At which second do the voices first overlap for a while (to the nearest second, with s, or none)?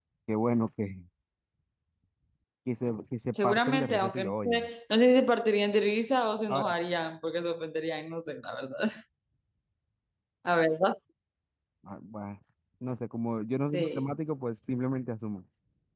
3 s